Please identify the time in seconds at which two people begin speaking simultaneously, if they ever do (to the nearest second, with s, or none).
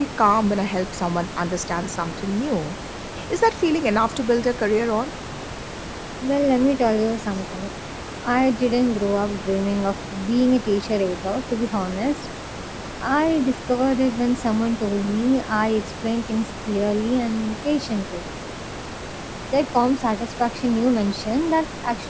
none